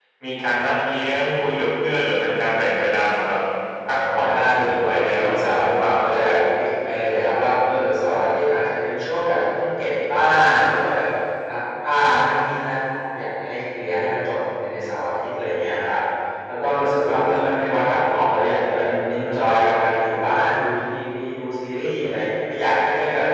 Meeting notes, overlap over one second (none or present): present